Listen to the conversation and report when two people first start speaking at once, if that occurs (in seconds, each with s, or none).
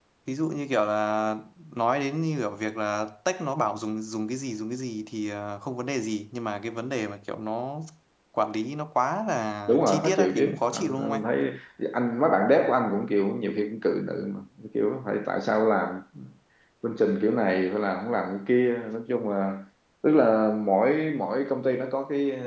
9.7 s